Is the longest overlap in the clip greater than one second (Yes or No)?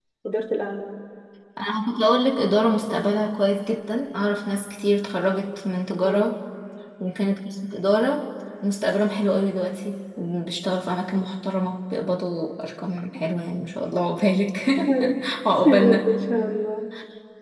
No